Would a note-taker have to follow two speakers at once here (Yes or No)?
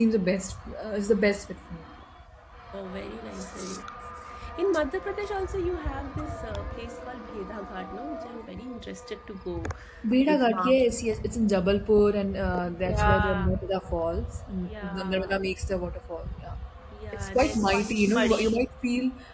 Yes